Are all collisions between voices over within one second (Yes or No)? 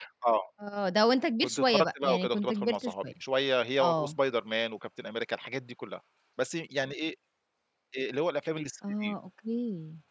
No